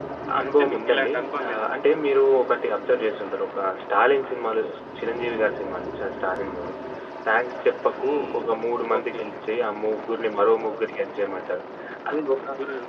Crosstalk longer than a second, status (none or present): present